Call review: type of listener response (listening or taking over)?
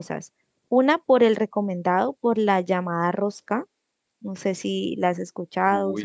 taking over